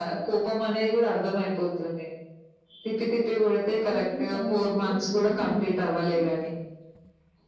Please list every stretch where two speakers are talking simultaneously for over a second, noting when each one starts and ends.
3.9-5.6

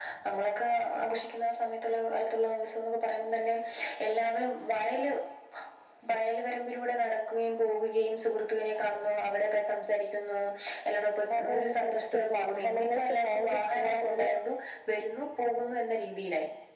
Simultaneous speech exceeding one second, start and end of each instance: 11.4-14.3

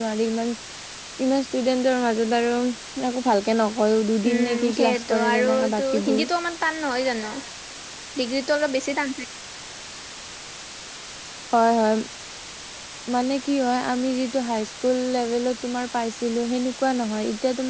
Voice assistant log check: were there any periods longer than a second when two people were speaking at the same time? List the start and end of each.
4.4-6.3

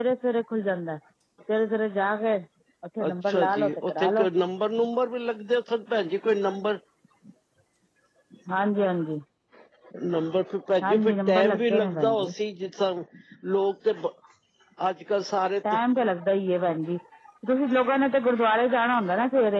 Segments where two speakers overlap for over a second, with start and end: 3.1-4.3, 10.8-12.3

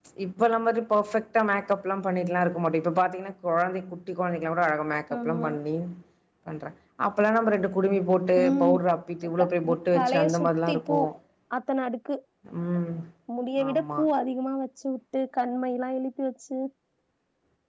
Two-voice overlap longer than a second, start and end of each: 9.4-11.0

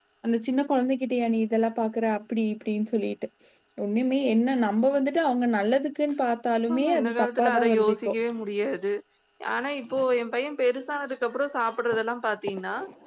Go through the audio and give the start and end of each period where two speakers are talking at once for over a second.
6.8-8.1

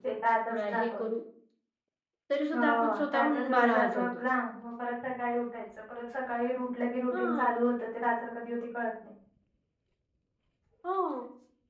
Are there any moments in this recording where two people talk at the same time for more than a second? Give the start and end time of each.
2.5-4.1

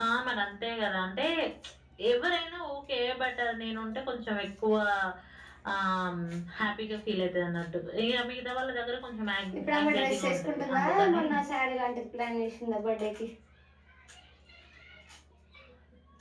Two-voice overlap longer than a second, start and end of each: 9.8-11.2

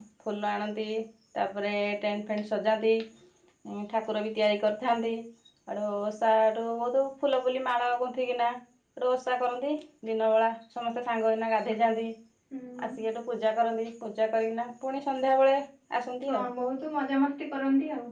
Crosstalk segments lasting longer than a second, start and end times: none

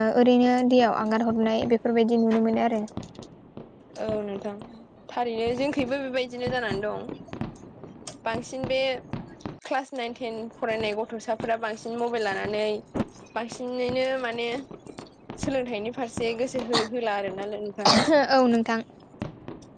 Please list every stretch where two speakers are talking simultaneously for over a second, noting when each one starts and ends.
none

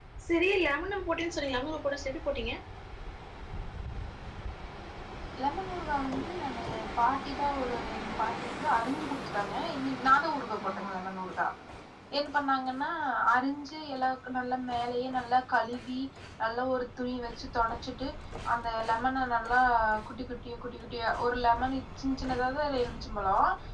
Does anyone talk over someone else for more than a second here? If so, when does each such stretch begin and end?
none

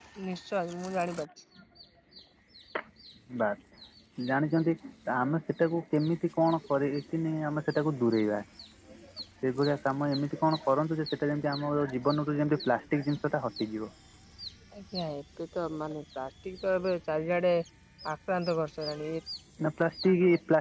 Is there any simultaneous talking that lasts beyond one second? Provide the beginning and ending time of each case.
none

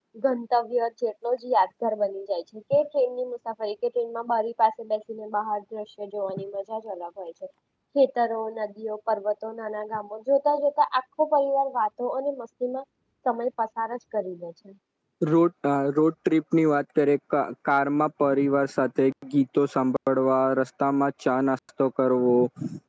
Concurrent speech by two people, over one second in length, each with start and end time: none

